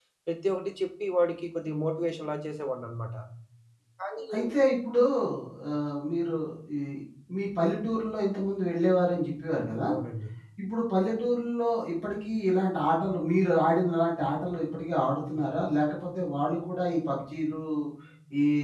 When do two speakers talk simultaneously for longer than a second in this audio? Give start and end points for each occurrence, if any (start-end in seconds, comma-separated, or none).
none